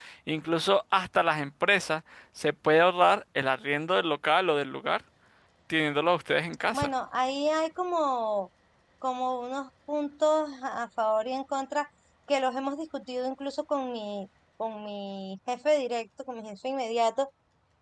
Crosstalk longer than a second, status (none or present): none